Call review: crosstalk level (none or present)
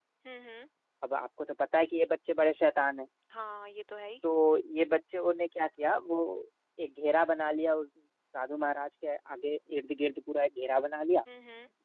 none